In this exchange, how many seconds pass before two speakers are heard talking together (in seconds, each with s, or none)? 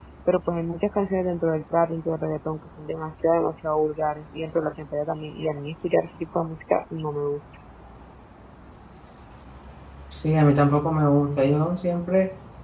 none